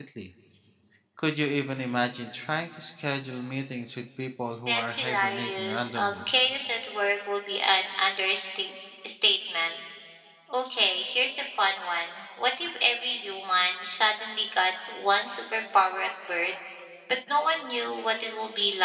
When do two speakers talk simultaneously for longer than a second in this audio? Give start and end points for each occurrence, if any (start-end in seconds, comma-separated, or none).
4.7-6.2